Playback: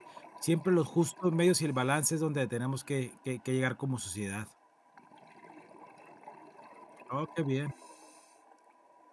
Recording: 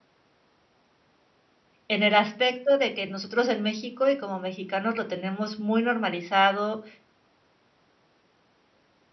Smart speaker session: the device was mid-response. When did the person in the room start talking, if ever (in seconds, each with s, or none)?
1.9 s